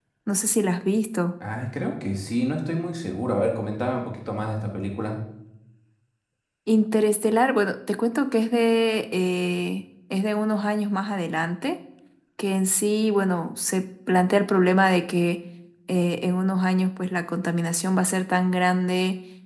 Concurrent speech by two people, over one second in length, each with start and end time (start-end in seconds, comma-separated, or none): none